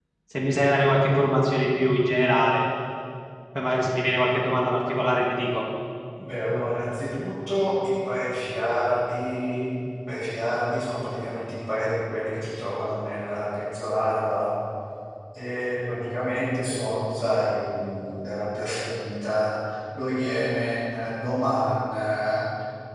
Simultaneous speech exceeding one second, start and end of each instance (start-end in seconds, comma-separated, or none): none